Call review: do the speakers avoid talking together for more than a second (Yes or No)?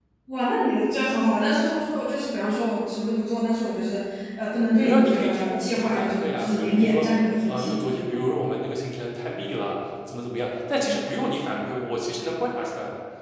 No